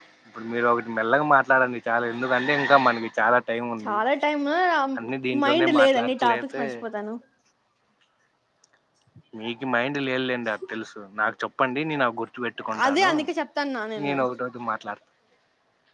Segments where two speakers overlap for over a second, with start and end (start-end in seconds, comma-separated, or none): 5.4-6.6